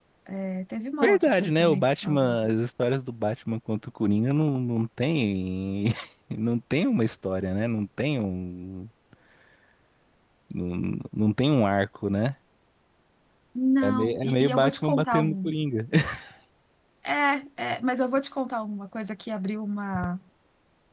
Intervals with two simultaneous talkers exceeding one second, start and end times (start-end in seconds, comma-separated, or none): 1.0-2.5, 13.8-15.5